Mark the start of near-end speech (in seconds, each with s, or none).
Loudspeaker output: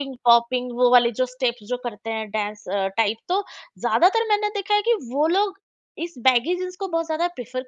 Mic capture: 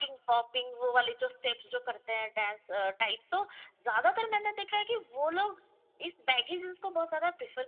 none